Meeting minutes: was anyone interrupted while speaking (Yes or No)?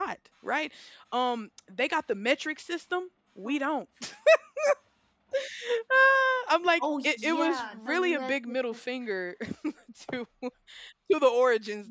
Yes